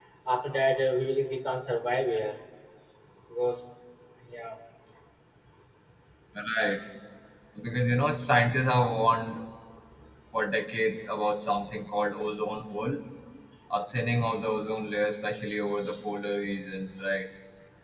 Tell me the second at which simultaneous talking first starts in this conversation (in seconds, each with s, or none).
none